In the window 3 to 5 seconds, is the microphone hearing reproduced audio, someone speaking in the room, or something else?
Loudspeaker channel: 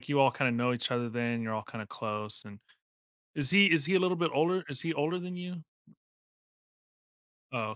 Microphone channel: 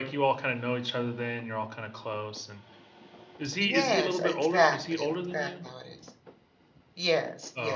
both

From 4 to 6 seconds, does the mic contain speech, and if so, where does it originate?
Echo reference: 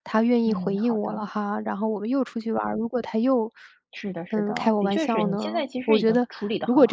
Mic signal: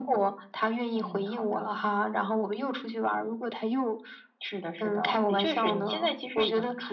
echo only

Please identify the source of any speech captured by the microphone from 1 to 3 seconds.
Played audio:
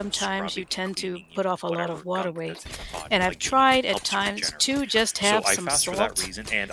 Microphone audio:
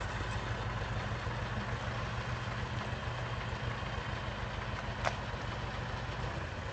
neither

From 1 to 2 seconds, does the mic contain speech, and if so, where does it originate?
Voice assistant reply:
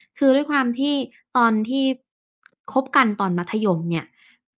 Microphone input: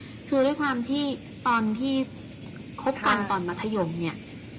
echo only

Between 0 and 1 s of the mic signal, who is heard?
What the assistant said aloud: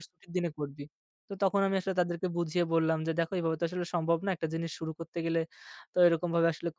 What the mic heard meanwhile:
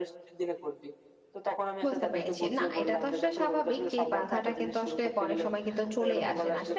echo only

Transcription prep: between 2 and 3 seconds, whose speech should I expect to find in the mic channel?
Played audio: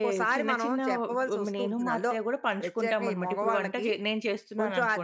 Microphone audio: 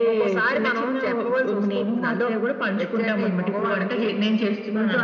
echo only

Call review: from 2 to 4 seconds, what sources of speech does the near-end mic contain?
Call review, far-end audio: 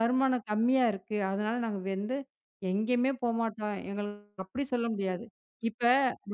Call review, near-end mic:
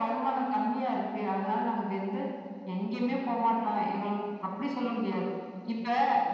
echo only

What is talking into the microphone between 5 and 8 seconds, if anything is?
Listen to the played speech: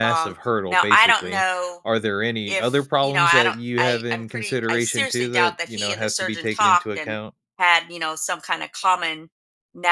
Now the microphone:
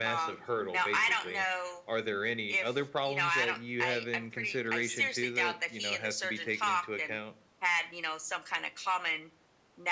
echo only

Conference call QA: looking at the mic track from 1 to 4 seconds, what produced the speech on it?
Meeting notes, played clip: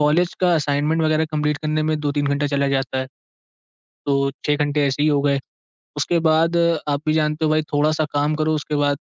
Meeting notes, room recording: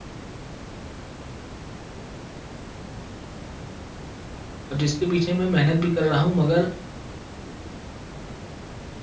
neither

